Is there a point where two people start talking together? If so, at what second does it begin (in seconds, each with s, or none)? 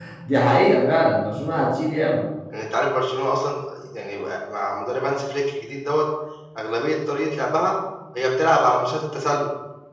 none